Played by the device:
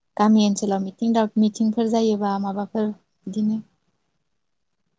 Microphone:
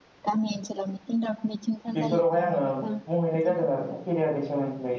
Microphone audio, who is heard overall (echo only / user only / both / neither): both